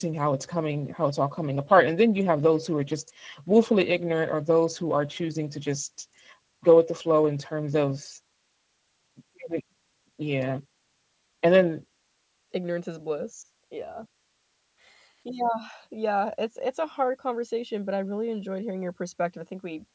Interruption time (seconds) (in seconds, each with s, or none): none